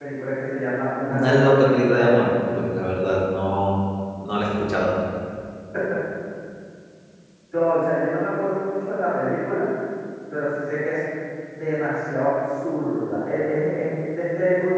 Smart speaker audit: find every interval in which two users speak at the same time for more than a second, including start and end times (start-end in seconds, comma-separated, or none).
1.1-2.3